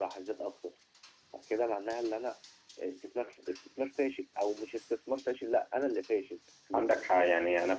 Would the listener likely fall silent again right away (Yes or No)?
No